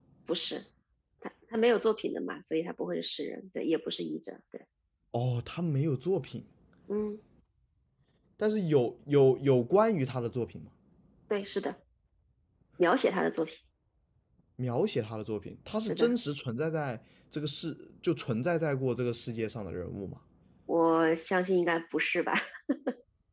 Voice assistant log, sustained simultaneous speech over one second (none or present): none